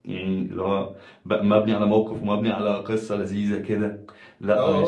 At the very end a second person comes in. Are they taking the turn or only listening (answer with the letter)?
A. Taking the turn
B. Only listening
A